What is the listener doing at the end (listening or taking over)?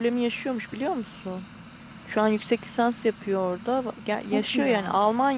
listening